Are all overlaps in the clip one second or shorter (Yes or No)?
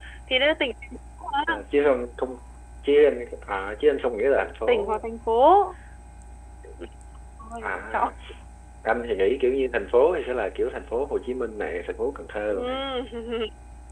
Yes